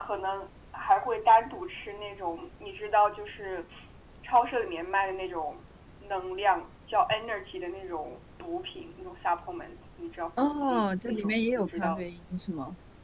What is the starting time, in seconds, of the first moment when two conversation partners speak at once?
10.4 s

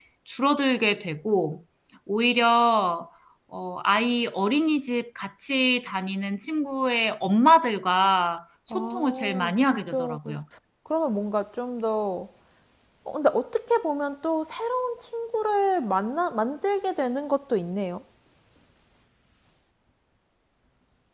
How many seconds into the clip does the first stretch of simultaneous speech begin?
8.7 s

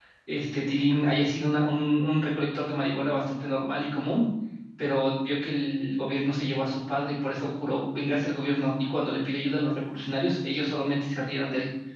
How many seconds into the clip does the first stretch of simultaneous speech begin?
none

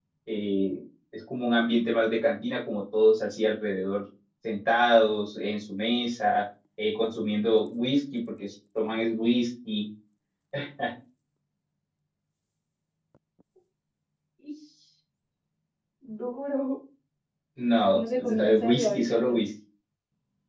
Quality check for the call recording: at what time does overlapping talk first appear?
17.9 s

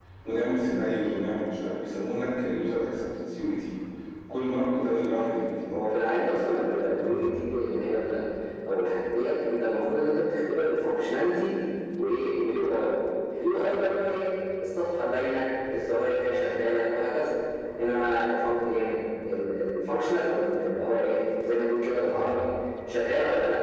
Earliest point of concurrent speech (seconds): none

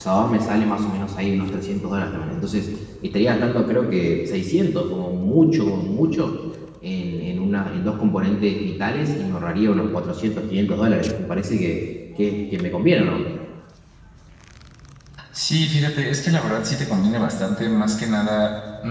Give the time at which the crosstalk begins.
none

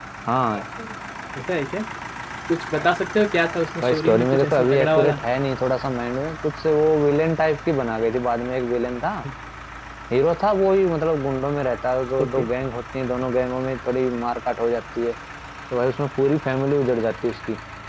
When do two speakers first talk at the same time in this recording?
3.8 s

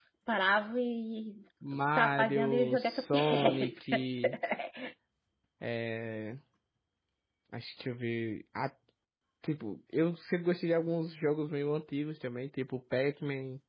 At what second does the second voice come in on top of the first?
1.6 s

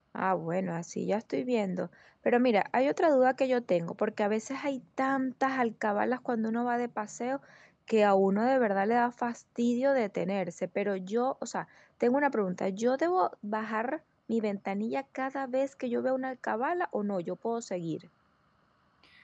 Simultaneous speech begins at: none

